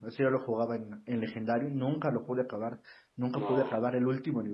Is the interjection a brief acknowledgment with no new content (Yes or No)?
Yes